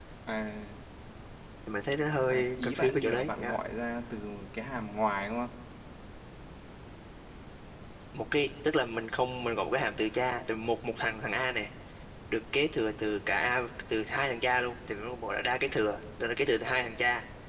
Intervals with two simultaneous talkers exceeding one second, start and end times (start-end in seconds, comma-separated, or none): 2.3-3.6